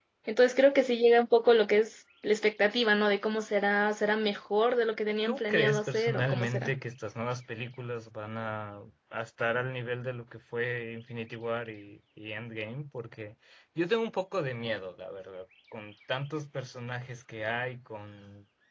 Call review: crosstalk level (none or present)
present